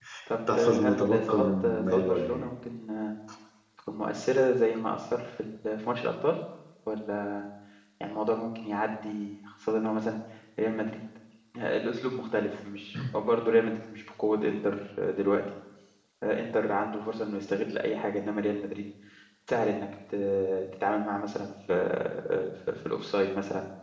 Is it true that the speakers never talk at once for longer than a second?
No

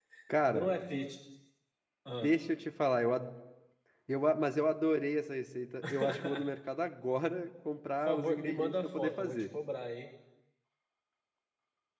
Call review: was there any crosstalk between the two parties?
Yes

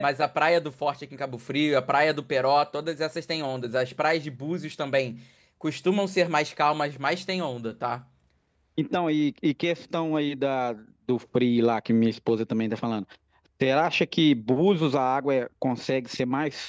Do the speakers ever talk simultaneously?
No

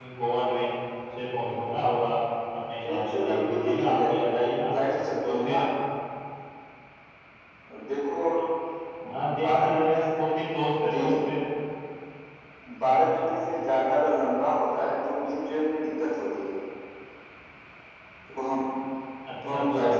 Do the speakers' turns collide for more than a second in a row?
Yes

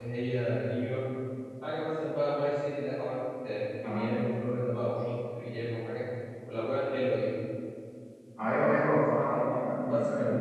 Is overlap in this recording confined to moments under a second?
Yes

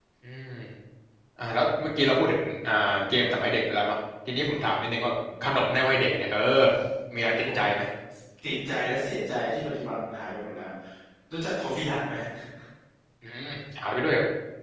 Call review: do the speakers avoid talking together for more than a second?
Yes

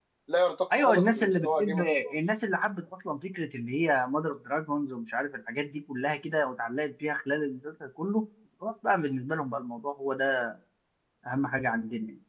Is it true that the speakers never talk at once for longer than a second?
No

